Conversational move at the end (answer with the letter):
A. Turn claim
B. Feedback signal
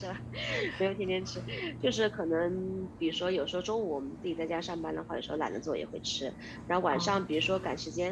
B